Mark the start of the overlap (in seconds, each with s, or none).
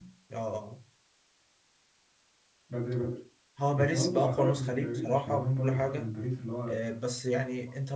3.7 s